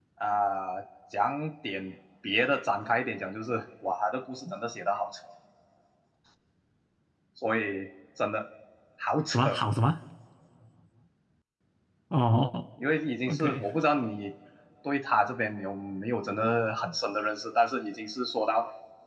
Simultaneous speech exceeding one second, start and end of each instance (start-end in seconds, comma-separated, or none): none